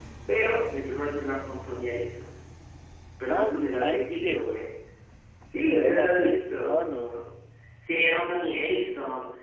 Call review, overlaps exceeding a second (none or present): present